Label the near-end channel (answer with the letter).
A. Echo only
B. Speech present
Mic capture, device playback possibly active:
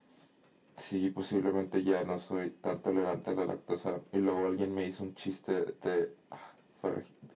A